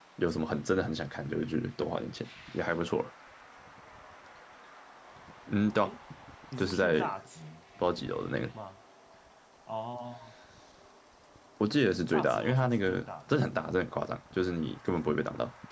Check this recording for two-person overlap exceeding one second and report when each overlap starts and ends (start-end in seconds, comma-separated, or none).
12.1-13.6